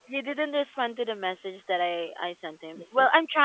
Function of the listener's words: listening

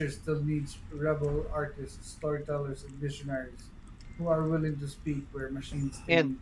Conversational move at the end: taking over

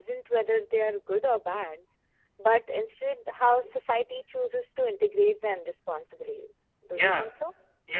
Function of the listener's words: taking over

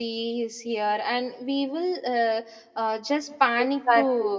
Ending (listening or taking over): taking over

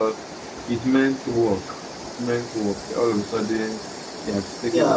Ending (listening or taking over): taking over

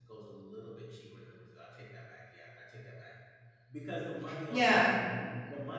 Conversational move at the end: listening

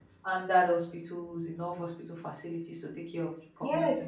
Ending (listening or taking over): taking over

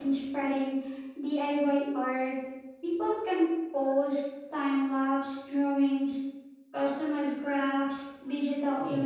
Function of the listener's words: listening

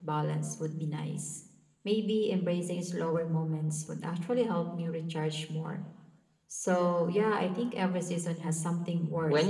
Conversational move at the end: taking over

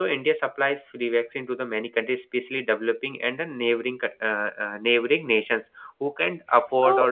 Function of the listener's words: taking over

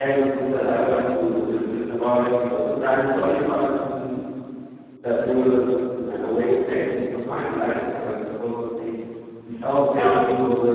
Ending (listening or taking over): listening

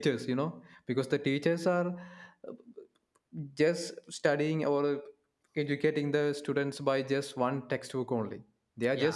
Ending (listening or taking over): listening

